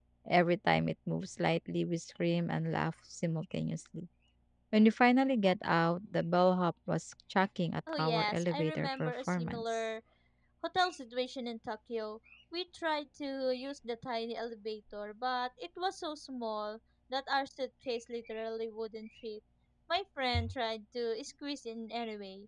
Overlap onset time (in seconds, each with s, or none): 7.9 s